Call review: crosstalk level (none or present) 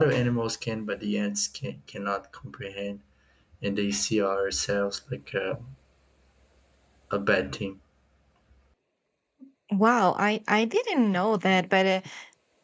none